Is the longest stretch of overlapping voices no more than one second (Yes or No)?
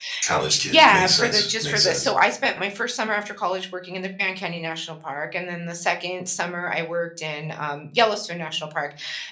No